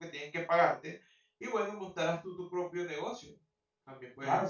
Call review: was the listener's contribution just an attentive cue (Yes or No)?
No